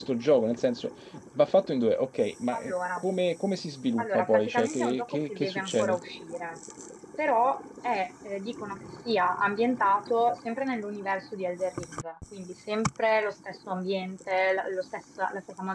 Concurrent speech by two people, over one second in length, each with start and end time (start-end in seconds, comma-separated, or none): 4.0-6.0